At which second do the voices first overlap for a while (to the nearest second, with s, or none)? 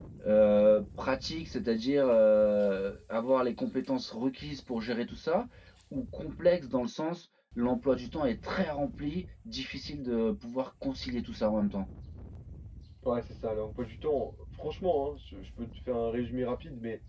none